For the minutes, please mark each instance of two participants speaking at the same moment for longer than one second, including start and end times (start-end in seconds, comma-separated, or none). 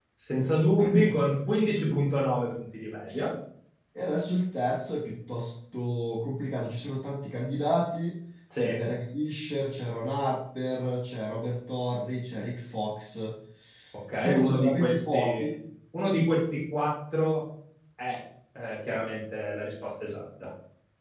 14.2-15.5